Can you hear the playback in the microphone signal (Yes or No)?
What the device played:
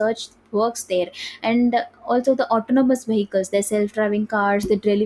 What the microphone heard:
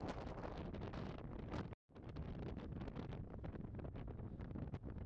No